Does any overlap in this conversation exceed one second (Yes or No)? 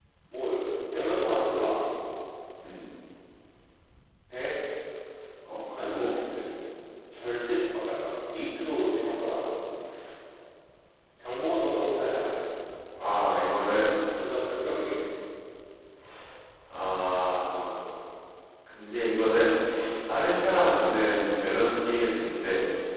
No